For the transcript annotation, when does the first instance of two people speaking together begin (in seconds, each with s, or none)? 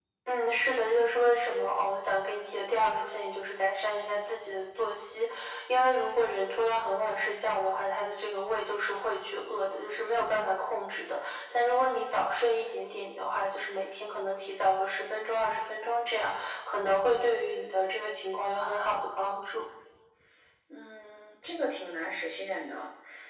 none